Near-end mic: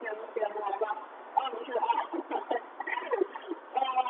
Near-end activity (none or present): none